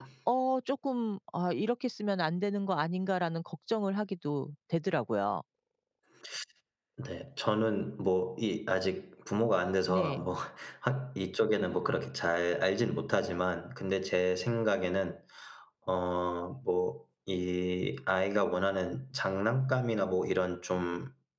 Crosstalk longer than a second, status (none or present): none